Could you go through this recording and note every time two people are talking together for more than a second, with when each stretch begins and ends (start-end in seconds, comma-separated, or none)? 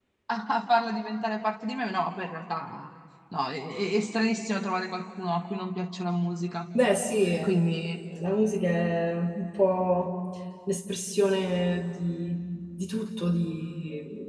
none